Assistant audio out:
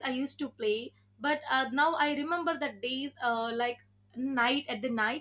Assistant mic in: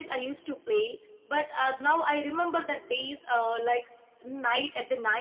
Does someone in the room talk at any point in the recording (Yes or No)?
No